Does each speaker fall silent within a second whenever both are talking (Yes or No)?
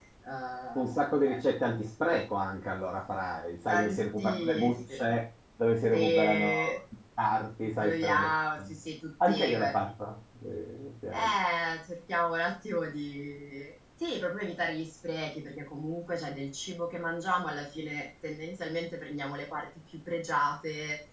No